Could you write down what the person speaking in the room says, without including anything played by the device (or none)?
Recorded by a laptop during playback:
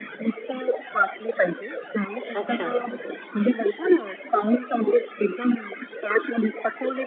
अच्छा.